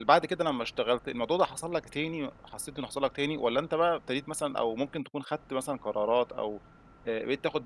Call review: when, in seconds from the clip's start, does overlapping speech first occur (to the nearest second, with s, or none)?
none